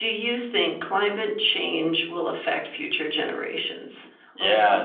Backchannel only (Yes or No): No